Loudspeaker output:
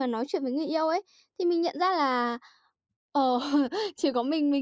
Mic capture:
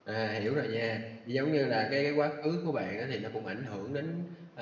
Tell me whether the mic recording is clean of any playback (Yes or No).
Yes